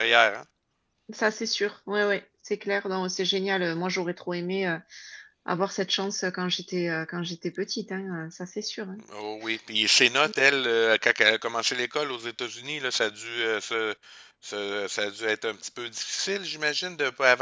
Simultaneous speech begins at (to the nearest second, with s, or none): none